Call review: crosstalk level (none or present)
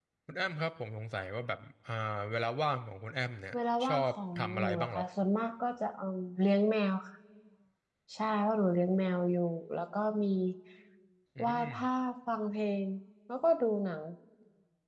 present